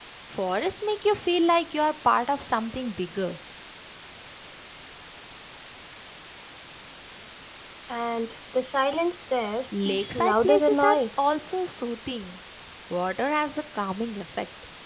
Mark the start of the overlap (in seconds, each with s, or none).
9.7 s